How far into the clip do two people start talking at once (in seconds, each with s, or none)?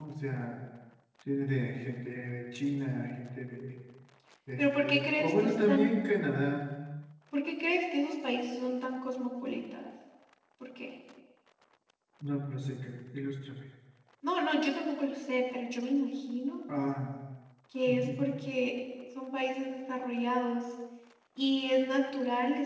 4.6 s